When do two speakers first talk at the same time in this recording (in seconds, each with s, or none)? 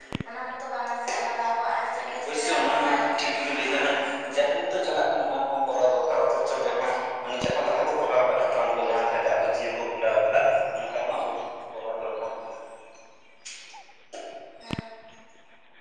1.9 s